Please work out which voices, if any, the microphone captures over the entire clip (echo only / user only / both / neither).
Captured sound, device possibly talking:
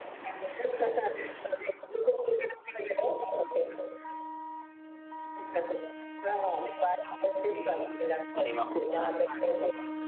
both